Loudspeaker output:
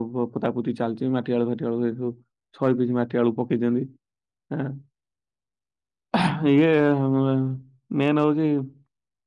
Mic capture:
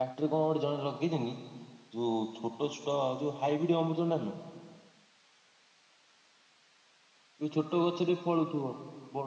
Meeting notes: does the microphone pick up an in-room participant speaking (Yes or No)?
Yes